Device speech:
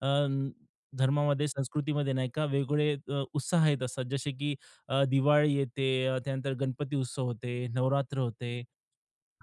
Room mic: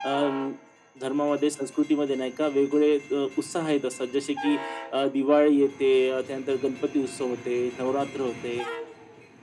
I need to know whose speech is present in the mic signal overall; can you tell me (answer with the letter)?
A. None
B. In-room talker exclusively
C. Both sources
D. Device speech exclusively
D